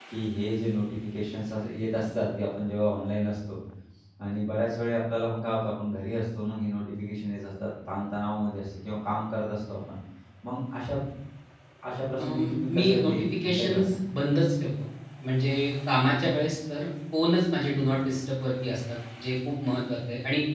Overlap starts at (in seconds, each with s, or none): 12.2 s